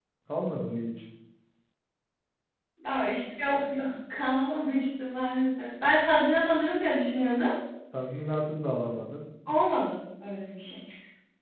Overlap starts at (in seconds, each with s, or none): none